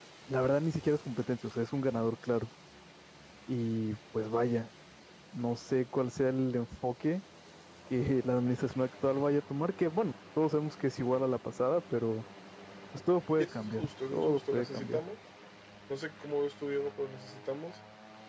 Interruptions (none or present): present